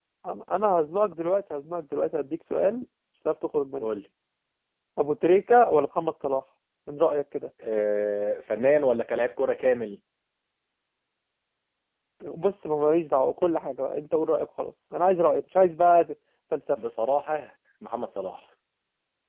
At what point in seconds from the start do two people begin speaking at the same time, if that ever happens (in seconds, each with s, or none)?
none